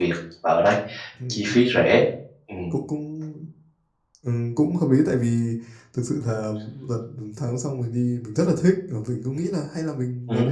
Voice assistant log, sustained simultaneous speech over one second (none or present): none